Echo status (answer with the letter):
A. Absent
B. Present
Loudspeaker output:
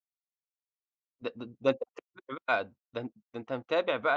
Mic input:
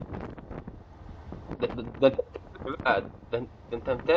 B